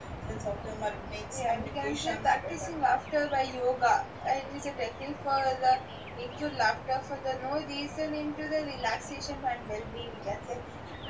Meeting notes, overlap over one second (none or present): present